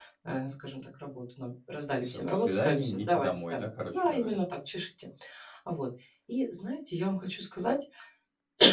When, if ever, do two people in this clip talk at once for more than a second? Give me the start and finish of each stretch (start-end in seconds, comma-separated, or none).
2.0-4.4